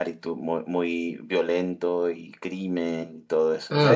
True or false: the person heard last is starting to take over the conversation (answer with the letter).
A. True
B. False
A